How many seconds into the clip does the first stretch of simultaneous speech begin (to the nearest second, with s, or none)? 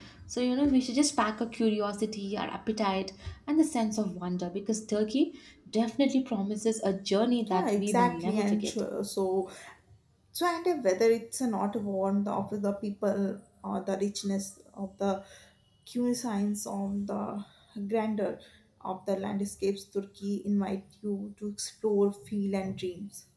7 s